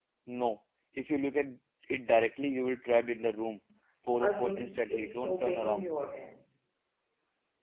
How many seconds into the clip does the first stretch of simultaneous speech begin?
4 s

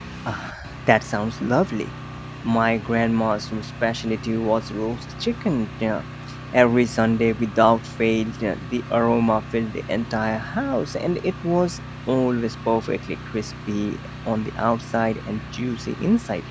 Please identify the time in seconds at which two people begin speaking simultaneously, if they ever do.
none

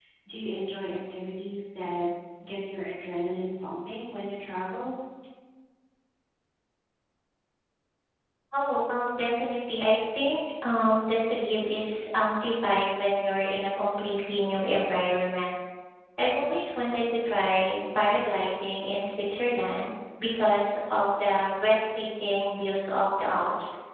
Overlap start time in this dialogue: none

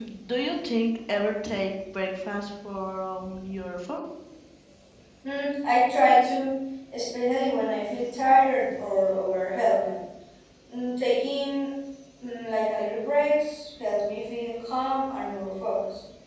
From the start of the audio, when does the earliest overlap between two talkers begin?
none

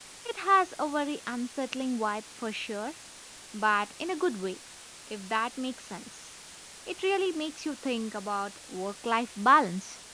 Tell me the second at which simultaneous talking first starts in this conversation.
none

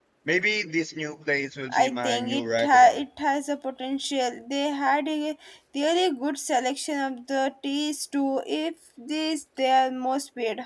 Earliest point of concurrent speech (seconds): 2 s

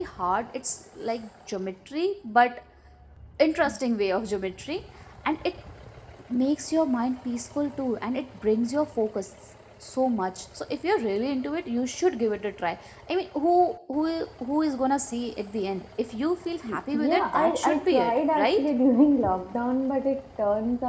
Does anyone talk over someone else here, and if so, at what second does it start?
17 s

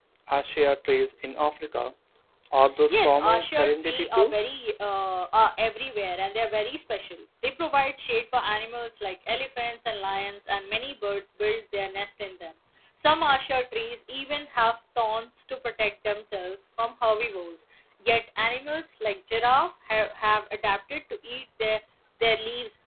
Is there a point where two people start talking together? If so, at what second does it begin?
3 s

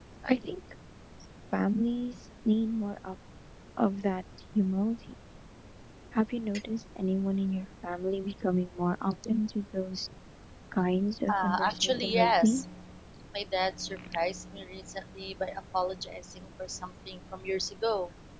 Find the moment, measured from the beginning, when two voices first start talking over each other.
11 s

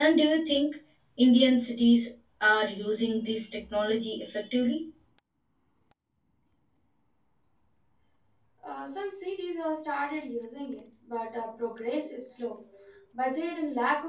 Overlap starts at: none

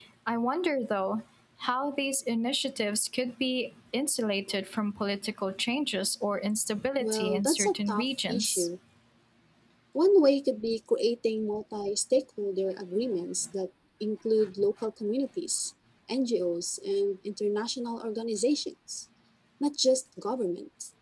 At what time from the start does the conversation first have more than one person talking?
7 s

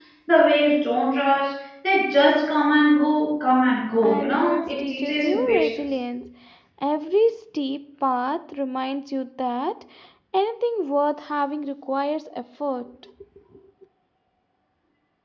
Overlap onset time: 4 s

